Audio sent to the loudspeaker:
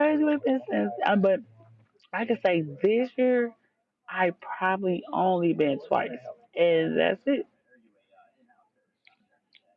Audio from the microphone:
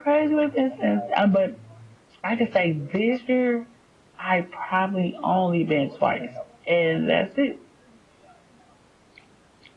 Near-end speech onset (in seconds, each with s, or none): none